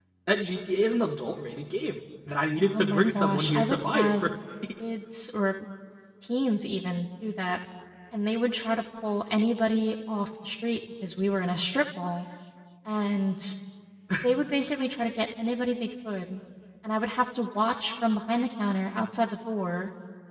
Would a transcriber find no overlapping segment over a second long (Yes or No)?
No